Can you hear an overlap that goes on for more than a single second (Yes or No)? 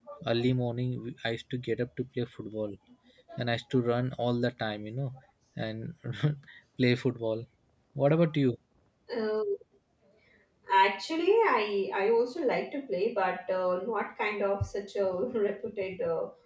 No